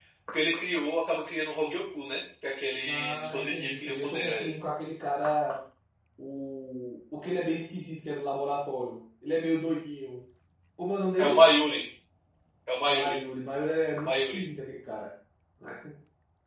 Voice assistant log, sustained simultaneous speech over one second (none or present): present